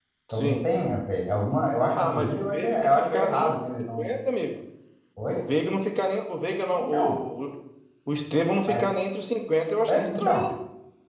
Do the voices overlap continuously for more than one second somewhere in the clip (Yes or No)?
Yes